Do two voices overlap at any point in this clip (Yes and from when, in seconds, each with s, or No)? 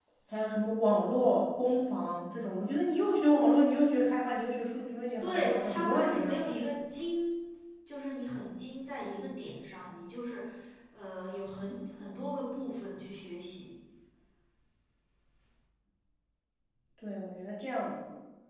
Yes, from 5.2 s